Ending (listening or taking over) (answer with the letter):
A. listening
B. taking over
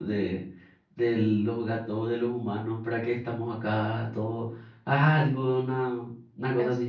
A